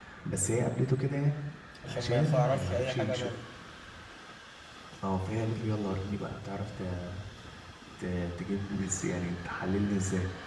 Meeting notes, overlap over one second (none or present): present